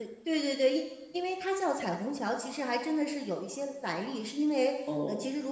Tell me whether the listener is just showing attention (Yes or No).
Yes